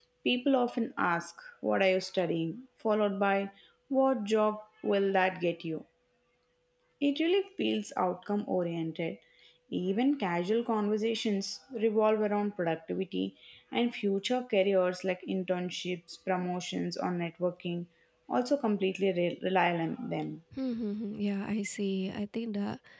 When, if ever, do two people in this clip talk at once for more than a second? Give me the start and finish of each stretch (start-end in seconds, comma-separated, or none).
none